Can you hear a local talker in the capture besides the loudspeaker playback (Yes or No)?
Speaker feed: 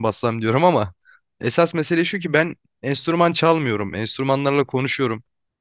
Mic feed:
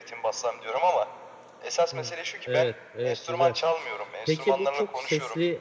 Yes